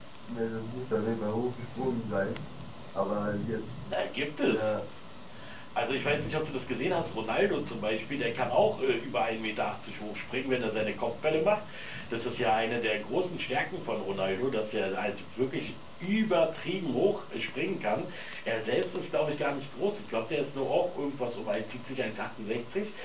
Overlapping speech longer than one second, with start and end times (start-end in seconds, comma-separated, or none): none